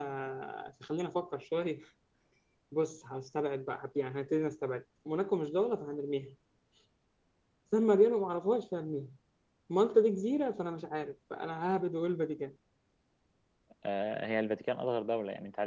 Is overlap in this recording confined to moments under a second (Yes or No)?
Yes